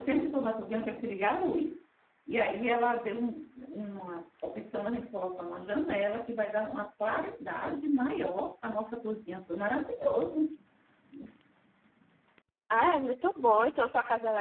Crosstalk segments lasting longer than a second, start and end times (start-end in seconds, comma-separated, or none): none